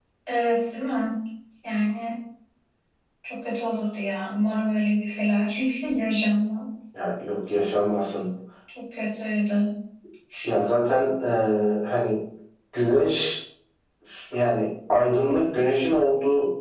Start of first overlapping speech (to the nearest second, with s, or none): none